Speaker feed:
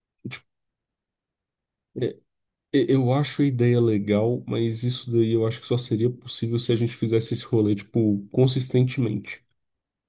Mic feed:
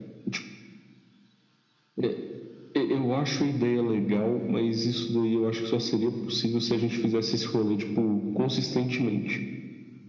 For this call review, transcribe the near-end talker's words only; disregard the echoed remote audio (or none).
none